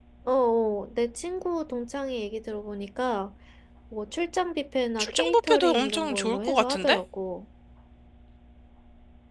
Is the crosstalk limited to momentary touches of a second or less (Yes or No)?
No